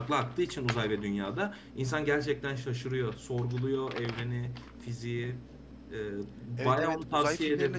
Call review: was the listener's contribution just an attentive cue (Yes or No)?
No